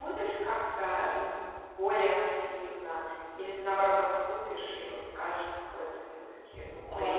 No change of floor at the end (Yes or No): No